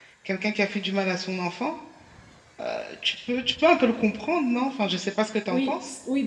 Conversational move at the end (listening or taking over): taking over